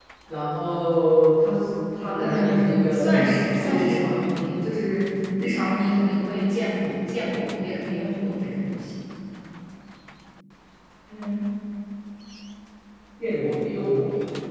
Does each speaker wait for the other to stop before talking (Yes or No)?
No